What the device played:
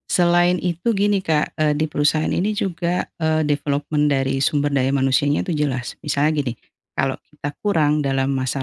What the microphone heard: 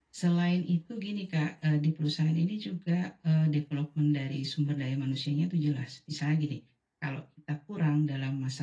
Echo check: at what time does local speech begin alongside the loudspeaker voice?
none

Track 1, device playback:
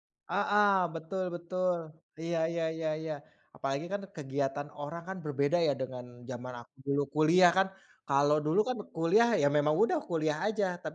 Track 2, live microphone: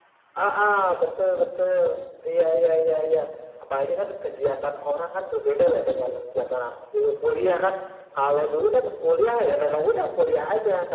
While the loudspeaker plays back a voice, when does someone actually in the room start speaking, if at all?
none

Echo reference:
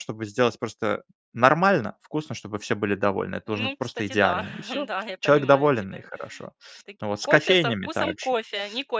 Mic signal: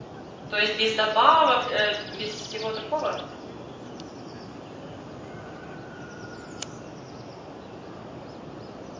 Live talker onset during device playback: 0.5 s

